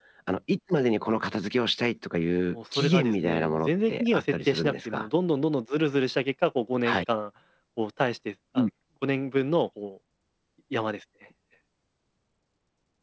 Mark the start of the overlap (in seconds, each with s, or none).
2.5 s